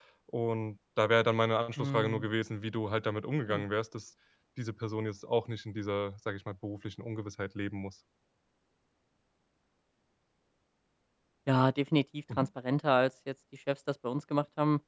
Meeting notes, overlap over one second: none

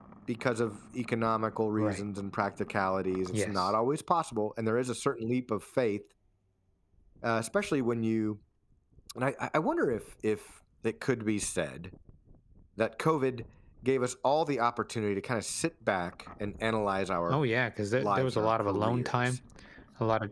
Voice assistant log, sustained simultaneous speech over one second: present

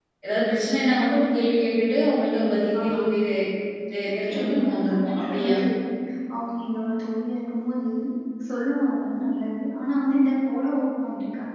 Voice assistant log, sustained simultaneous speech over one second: present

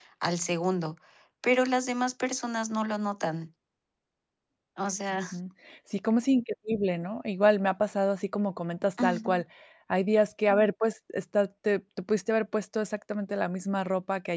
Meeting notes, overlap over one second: none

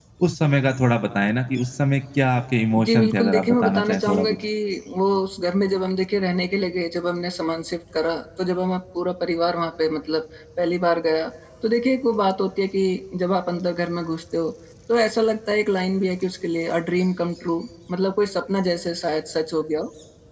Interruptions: present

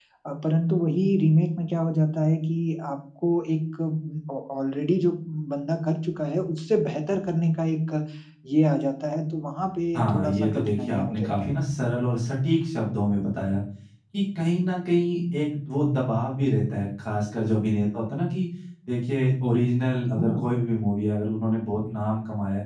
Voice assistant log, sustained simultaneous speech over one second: present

